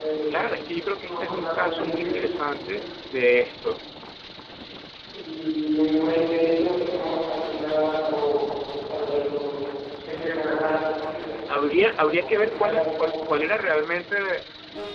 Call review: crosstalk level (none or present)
present